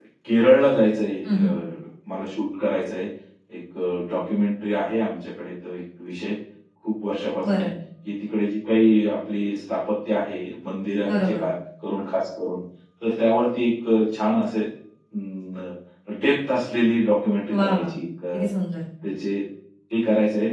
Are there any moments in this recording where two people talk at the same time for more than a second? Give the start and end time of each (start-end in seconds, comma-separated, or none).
none